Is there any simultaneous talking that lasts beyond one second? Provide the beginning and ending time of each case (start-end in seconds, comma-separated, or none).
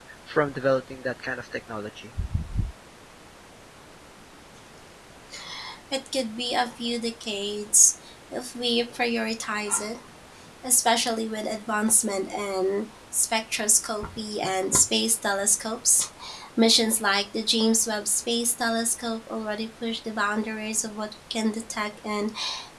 none